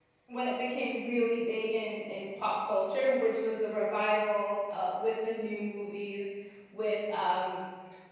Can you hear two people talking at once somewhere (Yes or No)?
No